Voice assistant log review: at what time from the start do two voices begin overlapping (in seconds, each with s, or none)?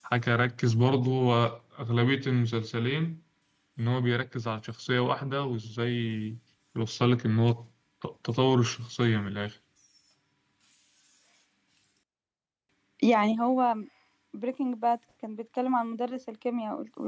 none